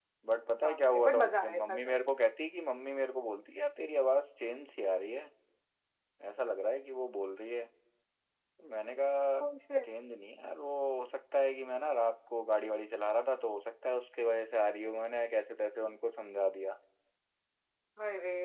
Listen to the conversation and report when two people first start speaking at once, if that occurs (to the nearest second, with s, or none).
1 s